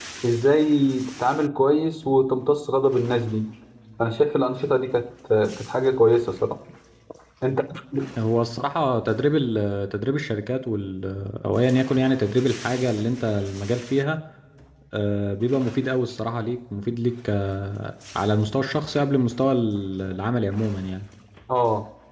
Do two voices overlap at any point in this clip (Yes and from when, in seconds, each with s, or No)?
No